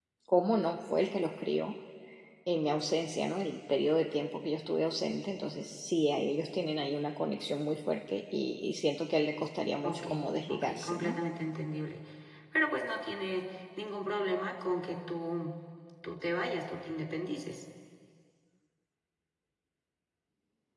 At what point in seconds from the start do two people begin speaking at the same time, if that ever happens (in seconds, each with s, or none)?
9.8 s